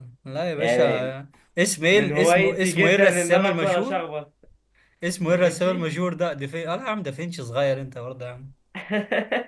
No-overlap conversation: No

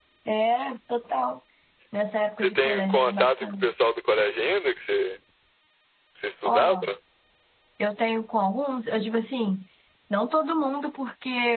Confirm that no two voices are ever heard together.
No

